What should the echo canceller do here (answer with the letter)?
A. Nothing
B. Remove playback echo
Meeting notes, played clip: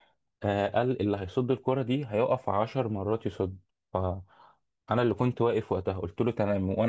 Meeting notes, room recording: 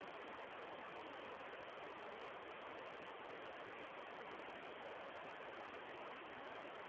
A